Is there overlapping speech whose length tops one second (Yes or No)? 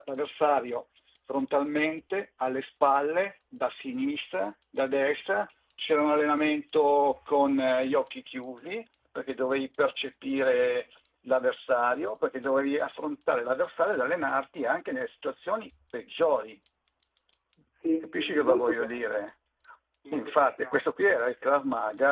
Yes